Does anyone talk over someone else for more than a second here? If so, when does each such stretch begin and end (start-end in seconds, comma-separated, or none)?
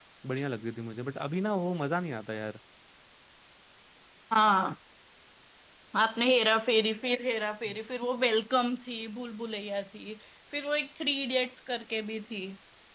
none